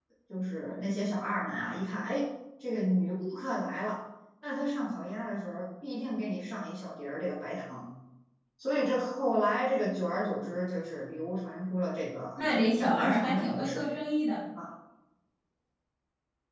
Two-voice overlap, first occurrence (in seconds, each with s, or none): 12.4 s